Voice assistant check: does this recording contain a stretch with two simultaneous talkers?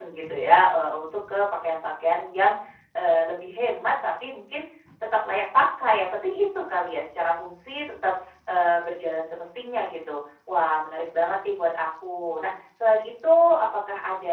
No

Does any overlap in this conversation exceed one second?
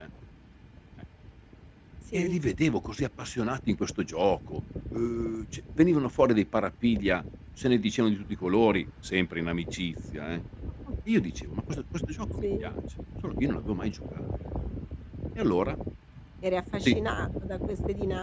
No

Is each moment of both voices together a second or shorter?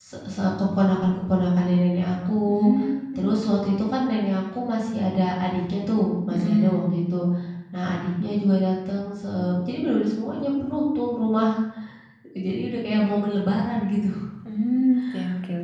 Yes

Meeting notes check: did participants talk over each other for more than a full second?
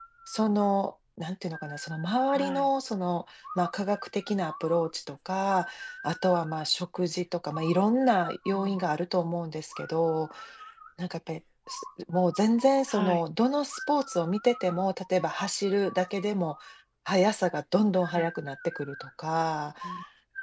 No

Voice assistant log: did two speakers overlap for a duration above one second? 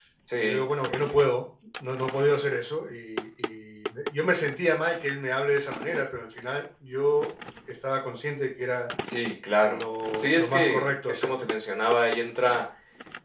Yes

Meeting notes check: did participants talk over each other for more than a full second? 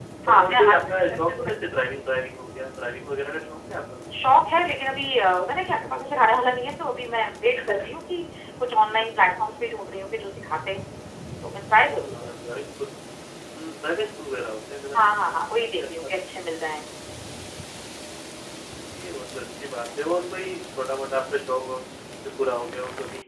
Yes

